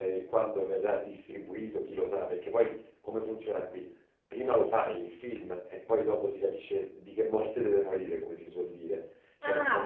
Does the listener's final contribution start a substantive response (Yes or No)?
Yes